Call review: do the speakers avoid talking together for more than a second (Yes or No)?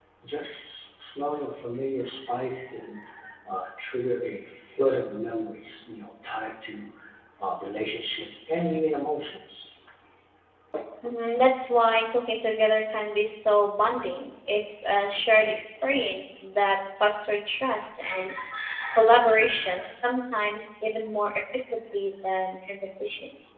Yes